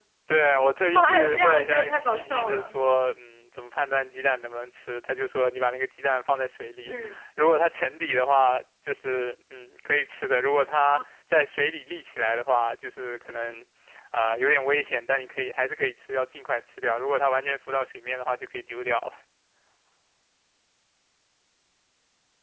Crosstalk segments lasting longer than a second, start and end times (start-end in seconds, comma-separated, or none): 1.0-2.7